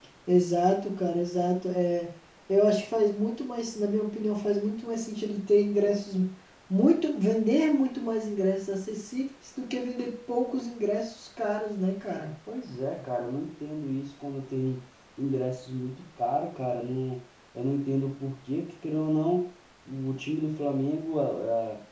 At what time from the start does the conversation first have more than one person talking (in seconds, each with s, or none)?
none